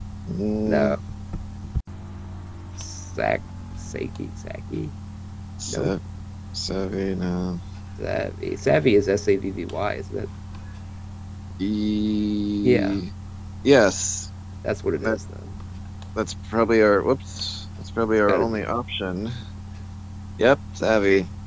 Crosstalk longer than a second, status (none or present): none